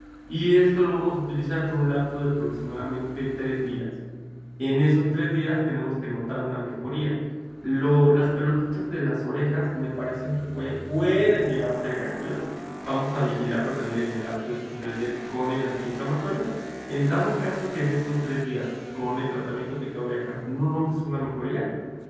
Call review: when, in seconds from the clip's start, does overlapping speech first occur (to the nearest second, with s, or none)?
none